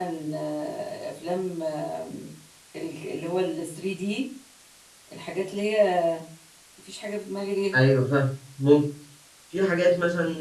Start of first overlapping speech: none

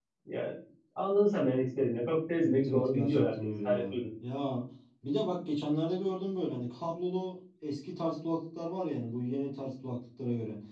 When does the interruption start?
2 s

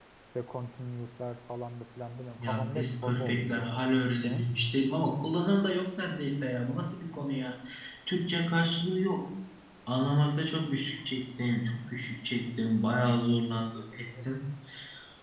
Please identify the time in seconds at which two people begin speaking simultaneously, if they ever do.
2 s

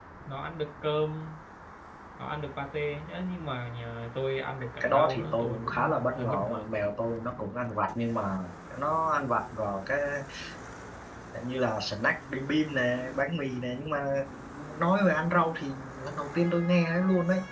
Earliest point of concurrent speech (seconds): 5 s

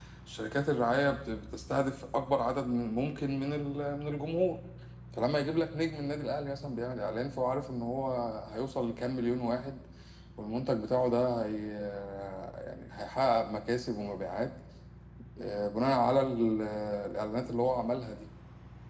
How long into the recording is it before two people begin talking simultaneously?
none

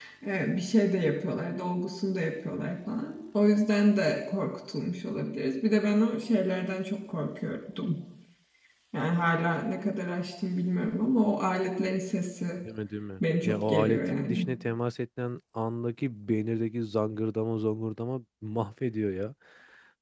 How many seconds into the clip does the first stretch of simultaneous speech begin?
13 s

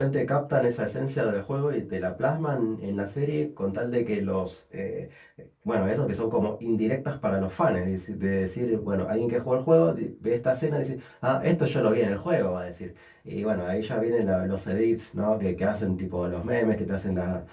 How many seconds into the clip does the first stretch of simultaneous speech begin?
none

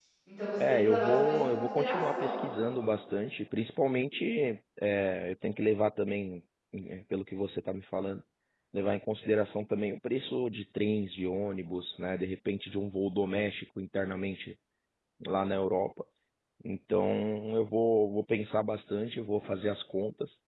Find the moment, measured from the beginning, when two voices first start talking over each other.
1 s

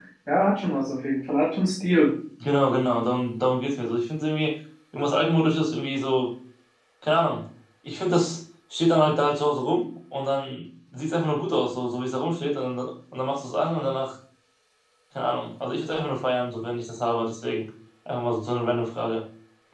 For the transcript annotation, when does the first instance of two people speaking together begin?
none

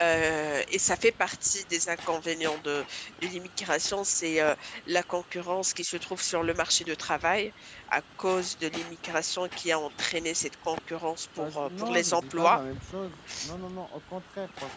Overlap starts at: 11 s

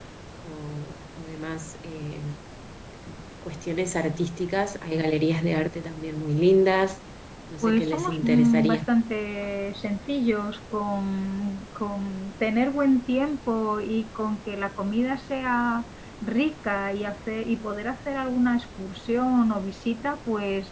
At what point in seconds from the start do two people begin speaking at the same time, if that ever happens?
8 s

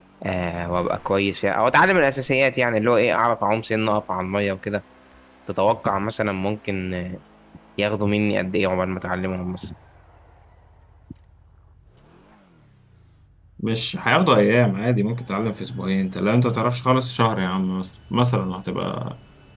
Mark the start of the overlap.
none

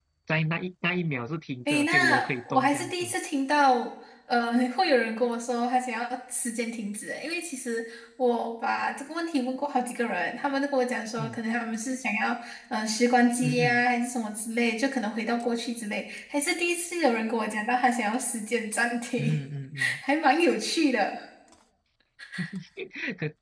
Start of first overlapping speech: 2 s

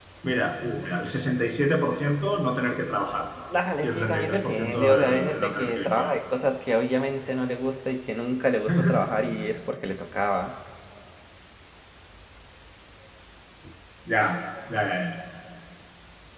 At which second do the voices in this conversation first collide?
4 s

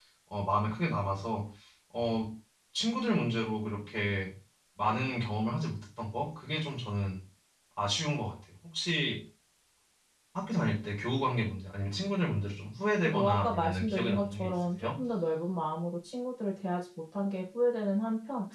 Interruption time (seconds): 13 s

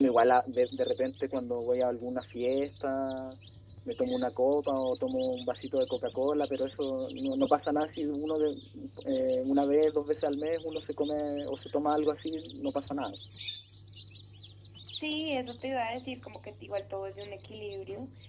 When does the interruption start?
none

